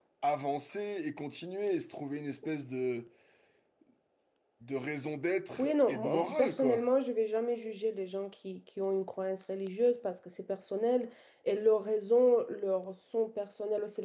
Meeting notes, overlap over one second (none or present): present